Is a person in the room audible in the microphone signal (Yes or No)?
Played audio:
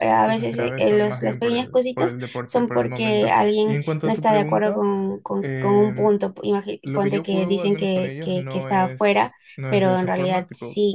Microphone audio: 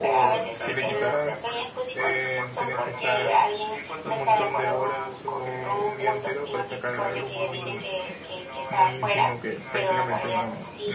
Yes